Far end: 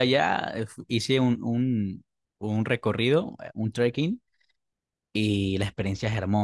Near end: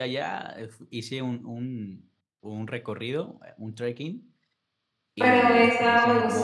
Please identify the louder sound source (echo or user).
user